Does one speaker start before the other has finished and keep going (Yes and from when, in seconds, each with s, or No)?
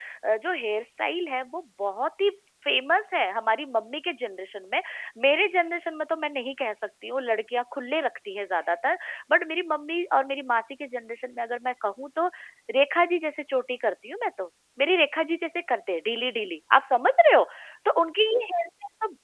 No